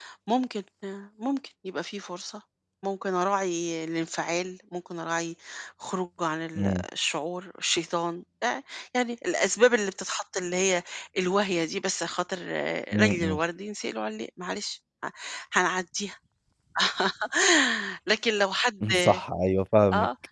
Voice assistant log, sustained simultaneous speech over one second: none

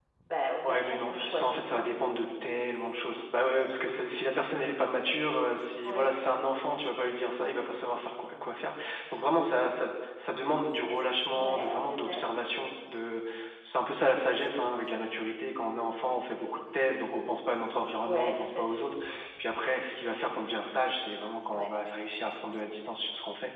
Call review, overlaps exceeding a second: present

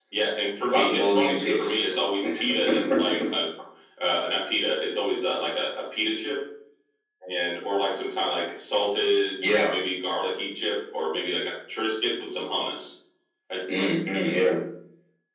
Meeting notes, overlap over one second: present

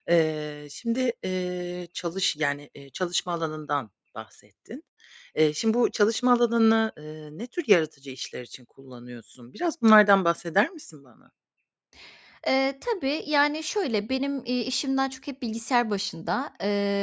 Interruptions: none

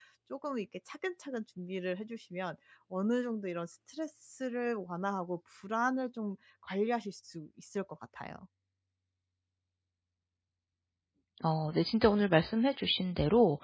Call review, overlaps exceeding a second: none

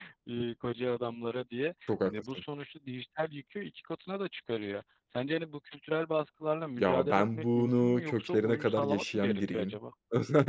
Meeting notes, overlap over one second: present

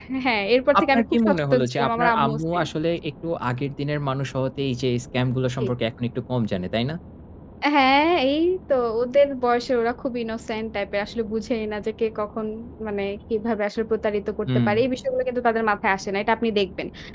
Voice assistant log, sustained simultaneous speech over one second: present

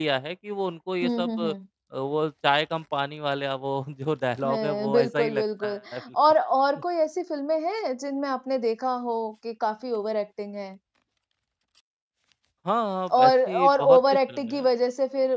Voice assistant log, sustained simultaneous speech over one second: present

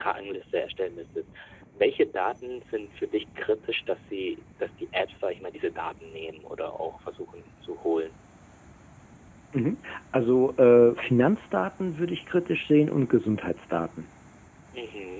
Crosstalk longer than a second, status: none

